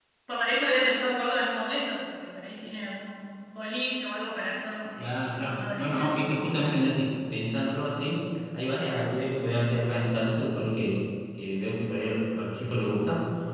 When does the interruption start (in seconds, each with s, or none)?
5.0 s